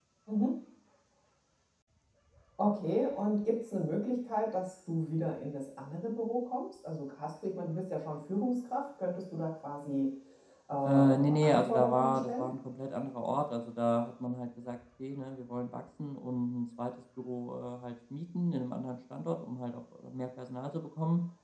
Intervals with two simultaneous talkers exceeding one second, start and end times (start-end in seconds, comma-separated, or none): 10.8-12.5